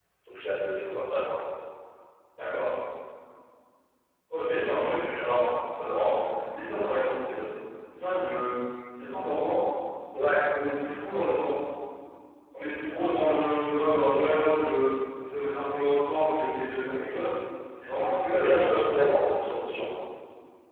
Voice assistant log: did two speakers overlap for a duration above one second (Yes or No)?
Yes